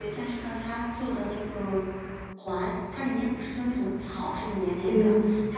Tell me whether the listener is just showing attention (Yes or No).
Yes